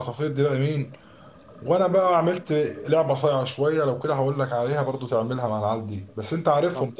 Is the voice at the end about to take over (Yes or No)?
Yes